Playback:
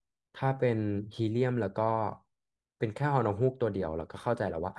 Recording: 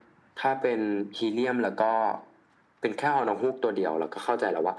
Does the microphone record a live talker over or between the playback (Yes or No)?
No